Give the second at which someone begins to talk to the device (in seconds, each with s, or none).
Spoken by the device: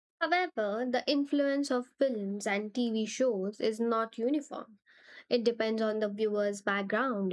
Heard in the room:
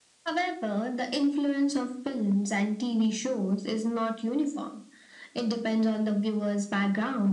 none